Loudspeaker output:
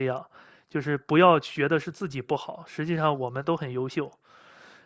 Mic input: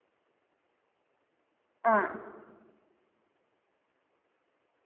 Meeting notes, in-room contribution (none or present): present